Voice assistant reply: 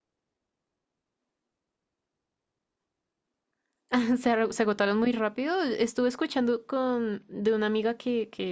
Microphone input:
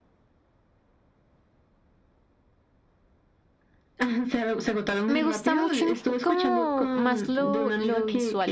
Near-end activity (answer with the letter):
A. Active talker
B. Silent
A